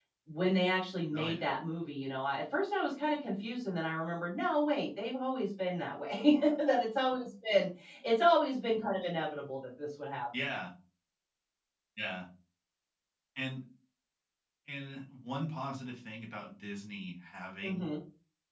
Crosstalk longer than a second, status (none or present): none